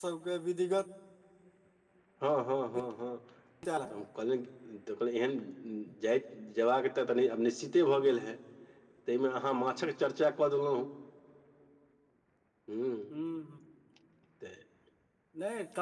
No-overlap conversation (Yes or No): Yes